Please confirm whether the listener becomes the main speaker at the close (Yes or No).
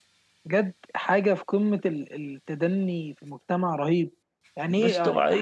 No